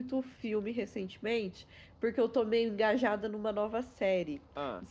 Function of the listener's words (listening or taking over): listening